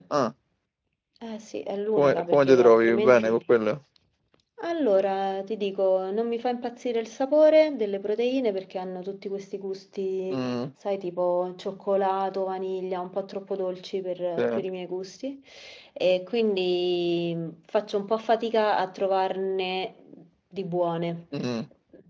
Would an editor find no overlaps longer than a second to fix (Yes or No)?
No